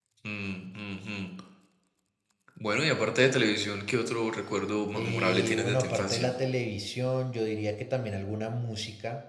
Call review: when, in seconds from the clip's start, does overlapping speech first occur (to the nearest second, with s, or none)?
5 s